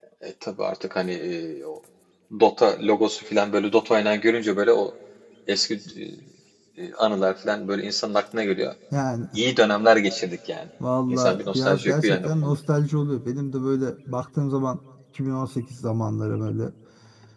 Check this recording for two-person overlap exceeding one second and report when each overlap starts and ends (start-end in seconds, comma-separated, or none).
11.1-12.5